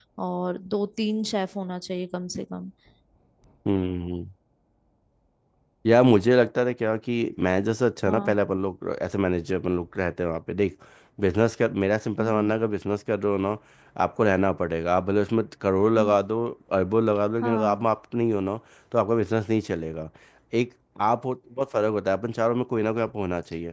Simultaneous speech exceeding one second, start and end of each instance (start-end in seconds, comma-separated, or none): none